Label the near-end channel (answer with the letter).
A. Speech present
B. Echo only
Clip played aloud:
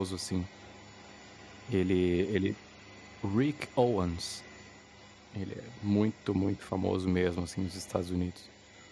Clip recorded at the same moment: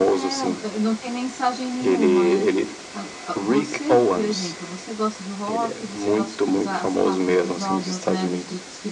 A